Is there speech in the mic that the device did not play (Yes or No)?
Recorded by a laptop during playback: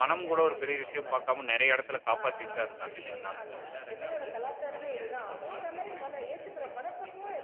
Yes